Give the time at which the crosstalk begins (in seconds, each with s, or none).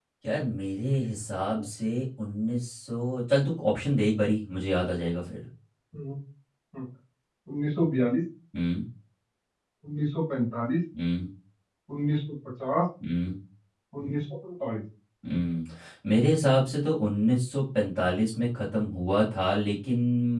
none